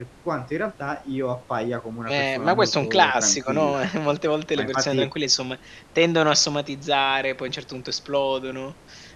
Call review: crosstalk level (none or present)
present